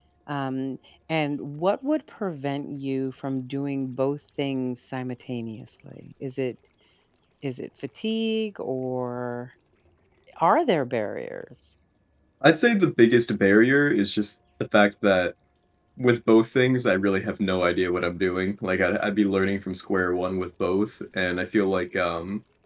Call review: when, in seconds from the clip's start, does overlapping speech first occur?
none

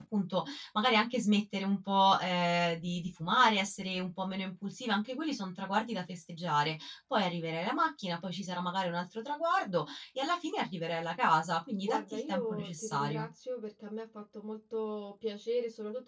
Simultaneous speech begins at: 11.8 s

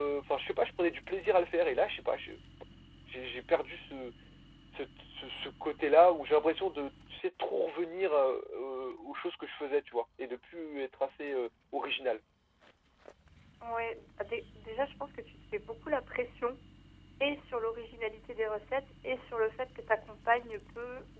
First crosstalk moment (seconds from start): none

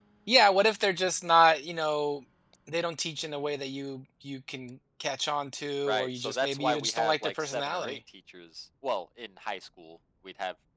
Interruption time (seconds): 5.9 s

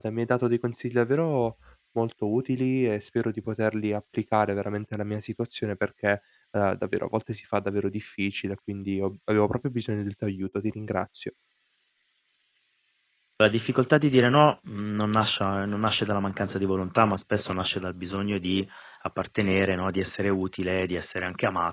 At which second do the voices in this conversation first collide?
none

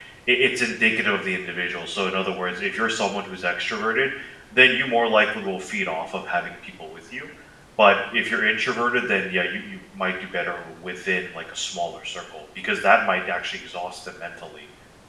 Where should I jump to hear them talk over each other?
none

